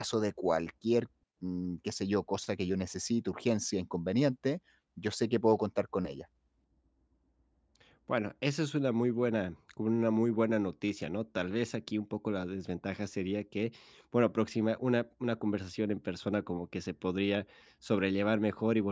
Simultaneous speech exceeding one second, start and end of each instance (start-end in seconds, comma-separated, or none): none